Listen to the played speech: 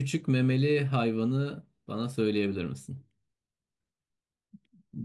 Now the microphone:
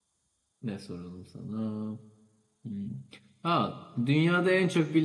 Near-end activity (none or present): present